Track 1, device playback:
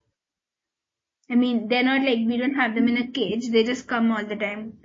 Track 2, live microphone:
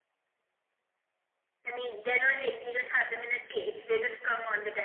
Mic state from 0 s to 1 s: neither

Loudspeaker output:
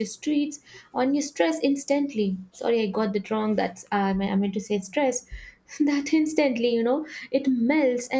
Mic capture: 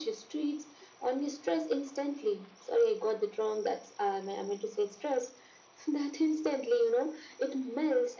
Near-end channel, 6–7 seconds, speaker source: echo only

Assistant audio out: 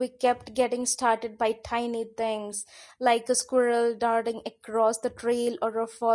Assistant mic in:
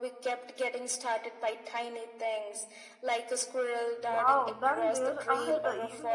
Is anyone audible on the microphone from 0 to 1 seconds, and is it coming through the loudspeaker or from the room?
echo only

